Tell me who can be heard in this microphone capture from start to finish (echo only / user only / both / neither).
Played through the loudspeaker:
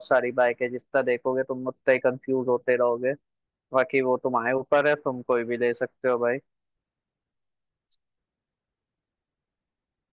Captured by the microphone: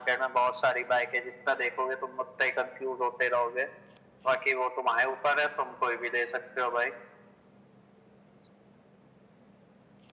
echo only